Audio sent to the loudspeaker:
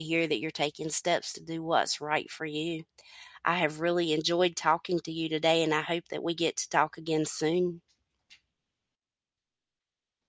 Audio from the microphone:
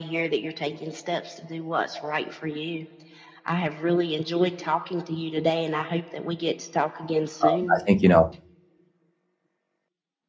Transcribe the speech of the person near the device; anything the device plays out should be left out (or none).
um, I think, you know,